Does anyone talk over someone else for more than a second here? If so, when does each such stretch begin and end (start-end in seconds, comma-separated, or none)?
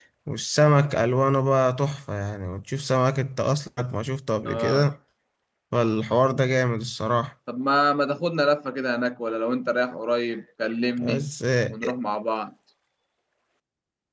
none